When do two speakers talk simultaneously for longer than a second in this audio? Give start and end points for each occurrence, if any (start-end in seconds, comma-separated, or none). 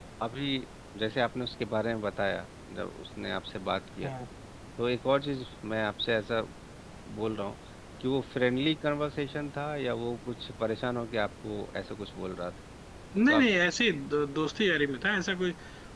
none